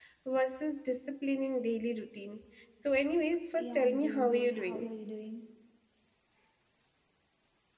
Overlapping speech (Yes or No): Yes